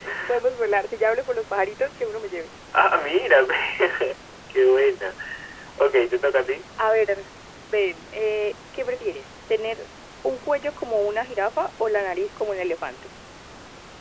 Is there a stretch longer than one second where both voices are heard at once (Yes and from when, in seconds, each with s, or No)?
No